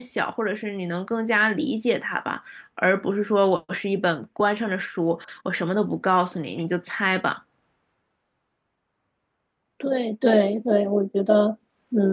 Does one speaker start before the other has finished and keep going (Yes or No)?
No